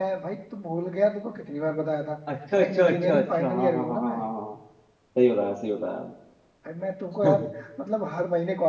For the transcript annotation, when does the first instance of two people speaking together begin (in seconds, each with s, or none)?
2.5 s